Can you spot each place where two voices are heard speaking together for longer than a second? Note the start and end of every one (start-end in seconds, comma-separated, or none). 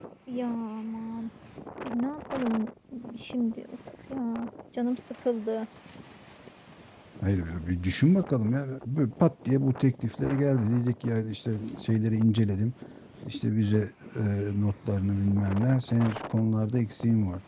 none